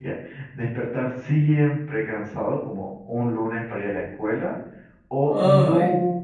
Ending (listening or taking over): listening